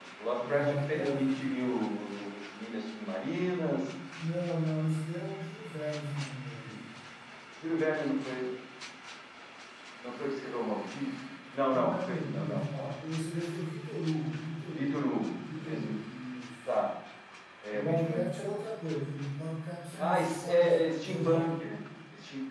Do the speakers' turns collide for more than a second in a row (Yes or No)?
Yes